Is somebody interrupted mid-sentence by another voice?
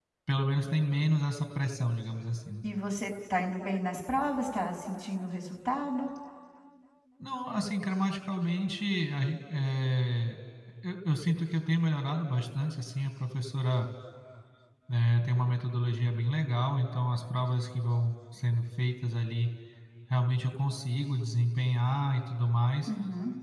No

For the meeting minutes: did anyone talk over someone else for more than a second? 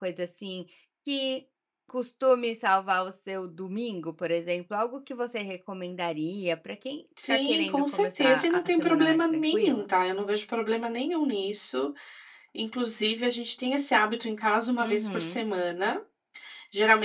Yes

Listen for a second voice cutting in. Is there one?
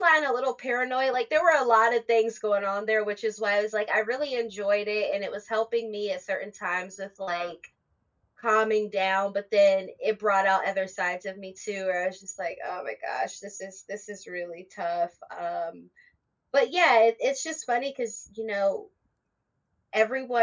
No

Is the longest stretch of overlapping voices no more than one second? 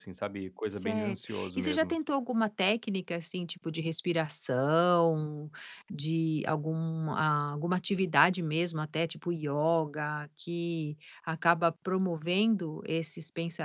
No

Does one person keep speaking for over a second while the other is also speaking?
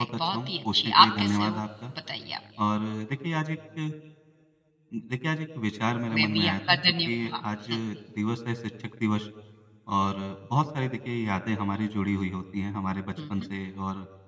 Yes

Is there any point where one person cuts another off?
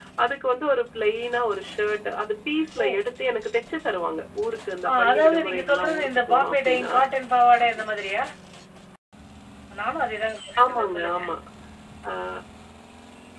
Yes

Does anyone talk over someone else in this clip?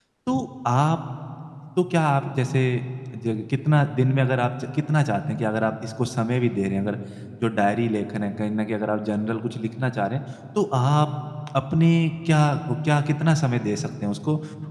No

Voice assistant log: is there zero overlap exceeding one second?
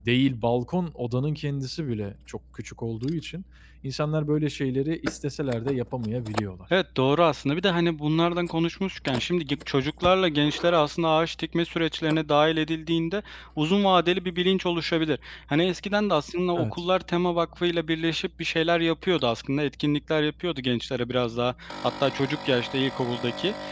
Yes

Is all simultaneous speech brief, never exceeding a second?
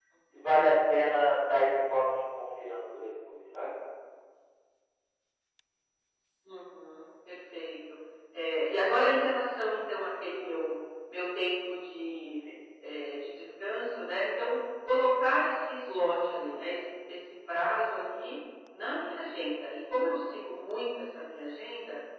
Yes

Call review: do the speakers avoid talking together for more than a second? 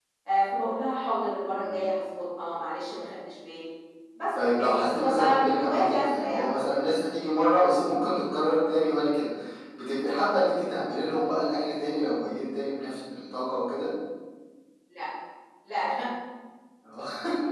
No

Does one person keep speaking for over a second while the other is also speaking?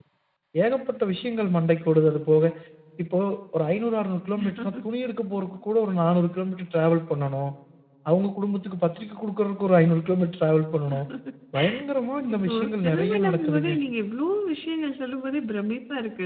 Yes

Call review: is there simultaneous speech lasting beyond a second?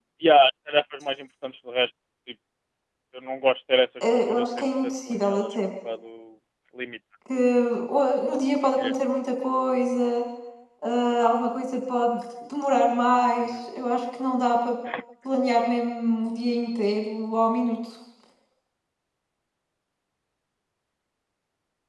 Yes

